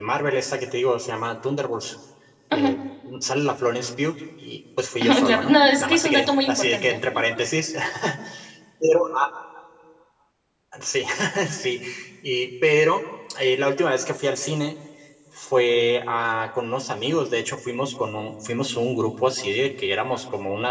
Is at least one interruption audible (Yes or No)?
Yes